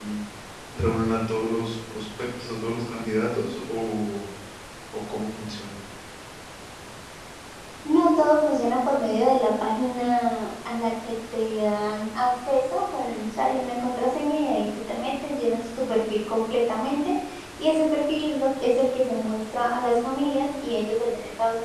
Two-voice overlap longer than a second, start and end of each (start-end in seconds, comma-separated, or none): none